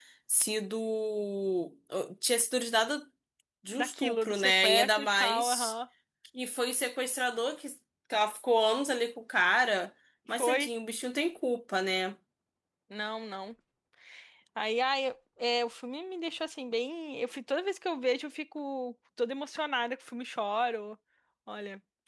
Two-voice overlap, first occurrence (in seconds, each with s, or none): 3.7 s